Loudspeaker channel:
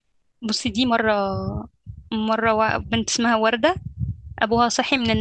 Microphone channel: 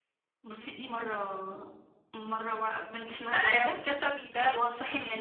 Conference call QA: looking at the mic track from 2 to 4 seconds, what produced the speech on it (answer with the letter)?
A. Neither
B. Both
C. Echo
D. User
B